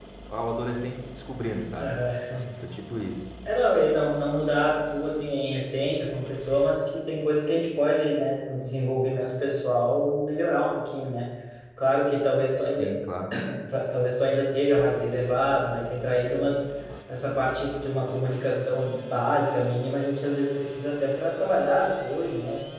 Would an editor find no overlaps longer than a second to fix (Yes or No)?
Yes